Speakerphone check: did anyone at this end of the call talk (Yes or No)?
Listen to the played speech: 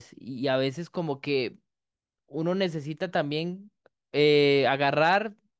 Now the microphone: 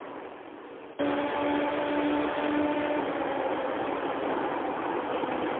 No